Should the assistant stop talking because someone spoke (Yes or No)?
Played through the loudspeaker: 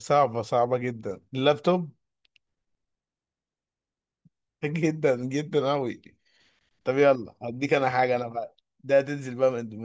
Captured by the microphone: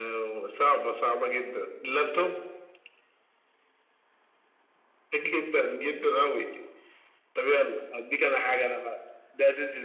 No